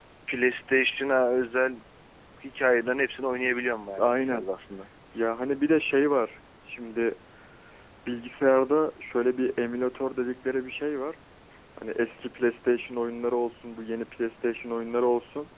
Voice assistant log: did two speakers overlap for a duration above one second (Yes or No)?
No